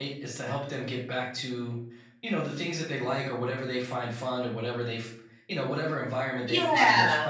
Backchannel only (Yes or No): Yes